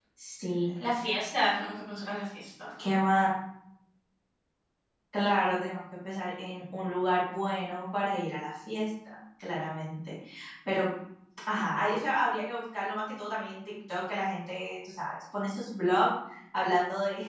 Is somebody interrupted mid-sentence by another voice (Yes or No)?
No